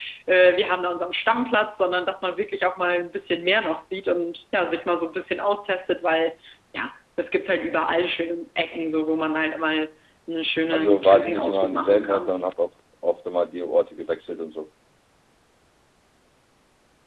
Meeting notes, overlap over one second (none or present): present